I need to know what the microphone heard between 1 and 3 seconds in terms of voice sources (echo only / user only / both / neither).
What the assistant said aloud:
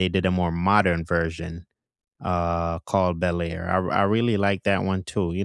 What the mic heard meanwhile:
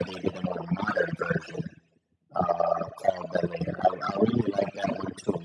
echo only